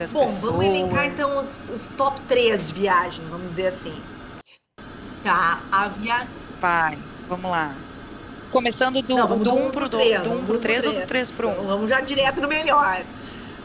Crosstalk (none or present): present